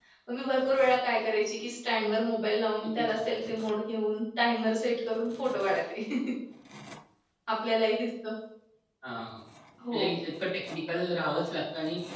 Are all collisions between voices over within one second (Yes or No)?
Yes